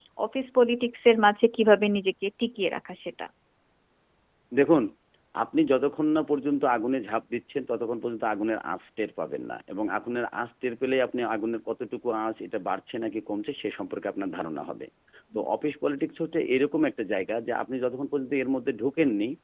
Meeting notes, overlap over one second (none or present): none